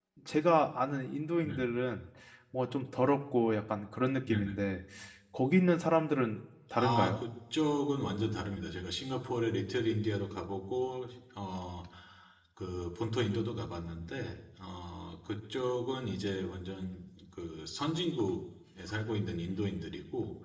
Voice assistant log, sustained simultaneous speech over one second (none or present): none